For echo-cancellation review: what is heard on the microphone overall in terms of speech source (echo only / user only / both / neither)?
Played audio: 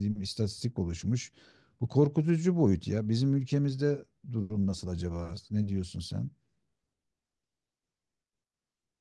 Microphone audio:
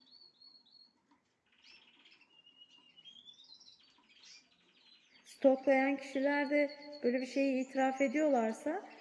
user only